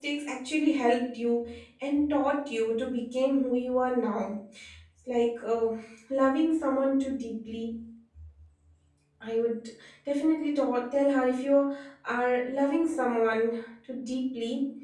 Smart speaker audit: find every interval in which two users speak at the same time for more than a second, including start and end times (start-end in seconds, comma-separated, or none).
none